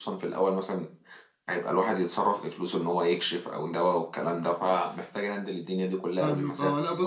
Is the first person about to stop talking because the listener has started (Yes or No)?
Yes